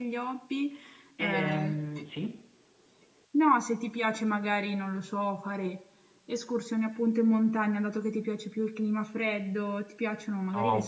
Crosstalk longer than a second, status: none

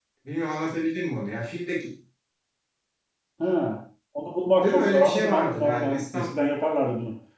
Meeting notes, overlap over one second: present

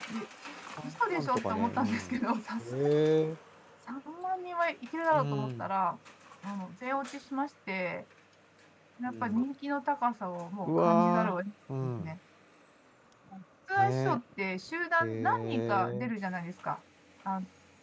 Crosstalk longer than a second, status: present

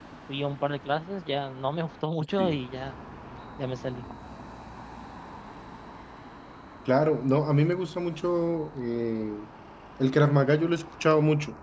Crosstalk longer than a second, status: none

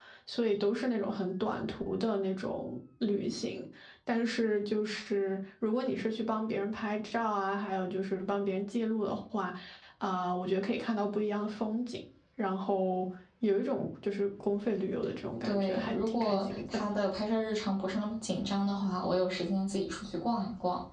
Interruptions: present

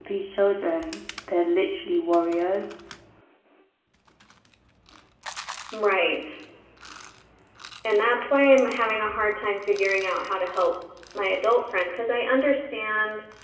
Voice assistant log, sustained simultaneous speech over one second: none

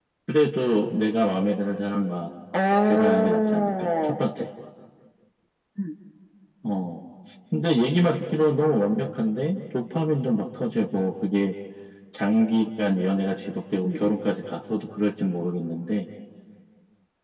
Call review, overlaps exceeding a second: present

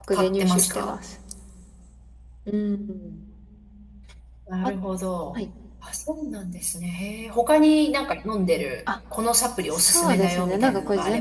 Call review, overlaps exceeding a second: present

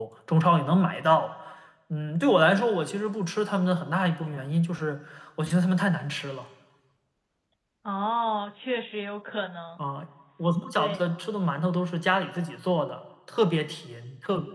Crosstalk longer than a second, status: none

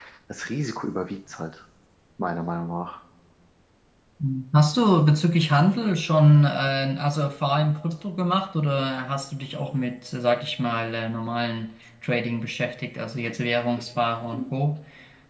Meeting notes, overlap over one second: none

